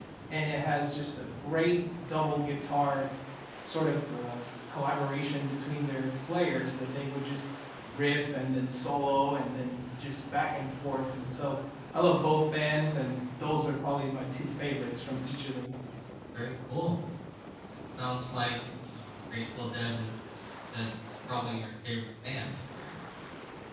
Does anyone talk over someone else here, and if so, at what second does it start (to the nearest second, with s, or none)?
none